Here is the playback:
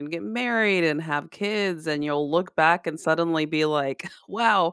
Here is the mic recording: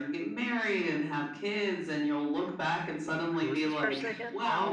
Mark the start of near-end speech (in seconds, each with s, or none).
3.4 s